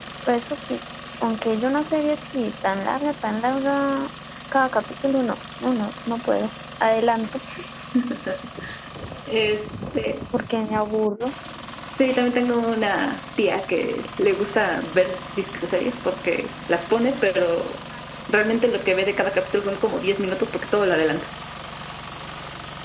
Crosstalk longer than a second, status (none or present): none